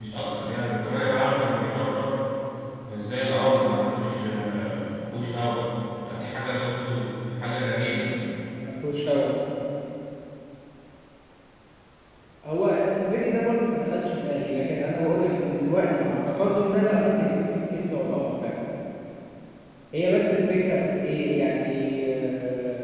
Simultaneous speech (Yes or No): No